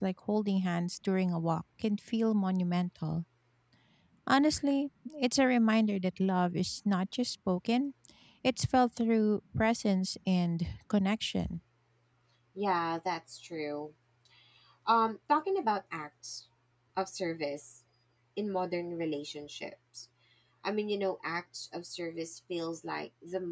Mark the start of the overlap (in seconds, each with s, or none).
none